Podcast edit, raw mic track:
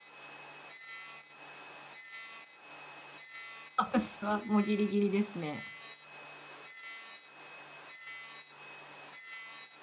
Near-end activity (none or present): present